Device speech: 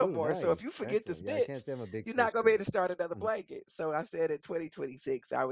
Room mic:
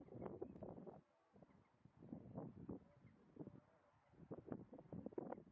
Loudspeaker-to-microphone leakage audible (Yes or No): No